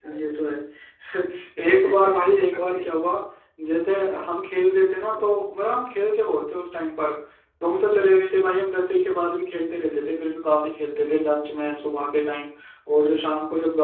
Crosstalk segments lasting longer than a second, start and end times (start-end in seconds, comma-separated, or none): 1.7-3.0